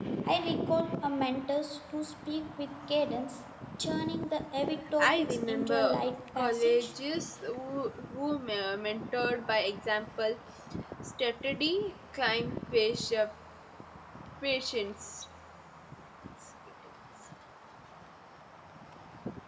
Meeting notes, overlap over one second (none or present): present